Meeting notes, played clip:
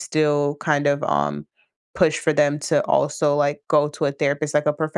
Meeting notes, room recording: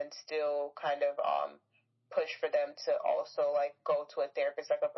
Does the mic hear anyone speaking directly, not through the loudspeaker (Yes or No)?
No